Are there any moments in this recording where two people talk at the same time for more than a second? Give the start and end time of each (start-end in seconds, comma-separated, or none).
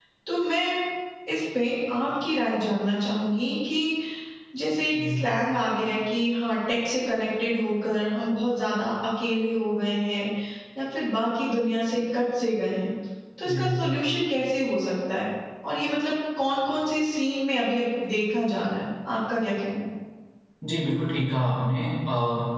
none